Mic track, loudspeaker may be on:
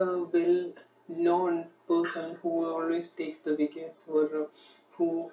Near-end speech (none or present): none